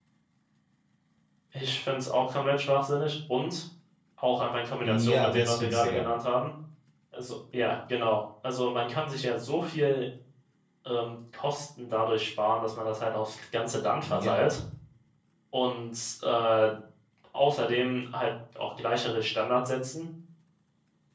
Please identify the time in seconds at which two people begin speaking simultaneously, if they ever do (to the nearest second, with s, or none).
5 s